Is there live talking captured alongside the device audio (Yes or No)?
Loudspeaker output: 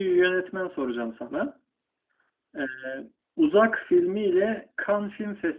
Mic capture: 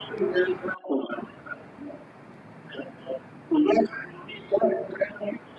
No